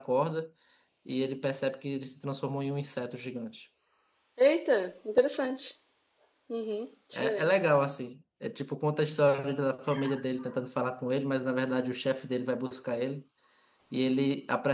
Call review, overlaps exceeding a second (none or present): none